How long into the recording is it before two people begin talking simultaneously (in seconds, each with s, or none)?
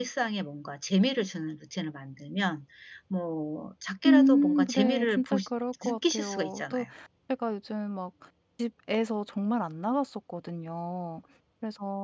4.0 s